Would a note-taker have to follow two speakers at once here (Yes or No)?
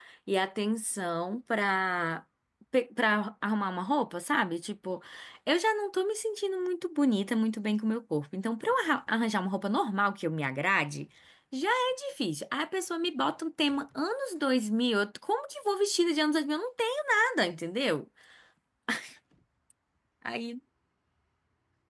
No